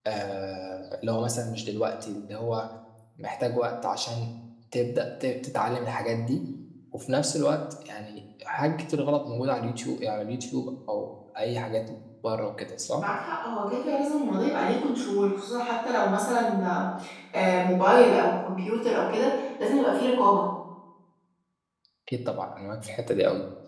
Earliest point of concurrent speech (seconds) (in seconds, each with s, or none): none